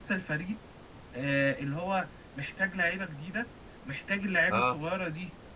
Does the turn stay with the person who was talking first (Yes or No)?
Yes